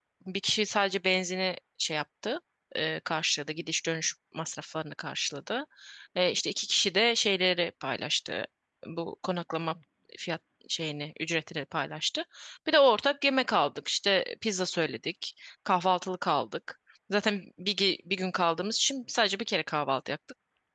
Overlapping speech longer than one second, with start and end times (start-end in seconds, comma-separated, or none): none